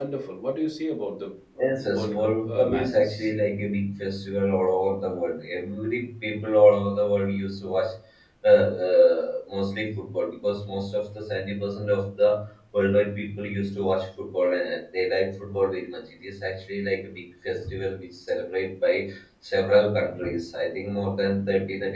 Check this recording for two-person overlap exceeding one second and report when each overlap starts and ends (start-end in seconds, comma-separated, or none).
1.6-3.1